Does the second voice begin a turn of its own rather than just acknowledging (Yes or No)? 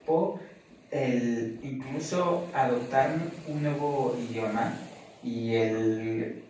No